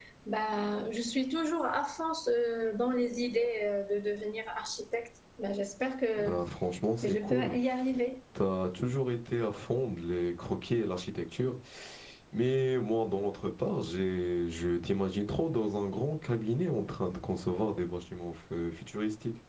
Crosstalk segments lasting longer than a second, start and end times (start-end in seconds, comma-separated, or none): none